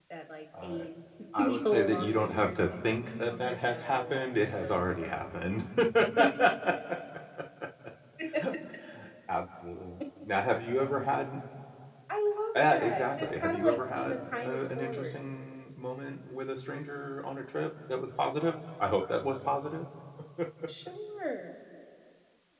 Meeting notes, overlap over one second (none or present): present